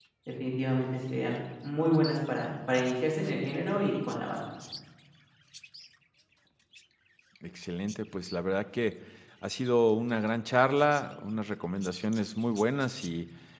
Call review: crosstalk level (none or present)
none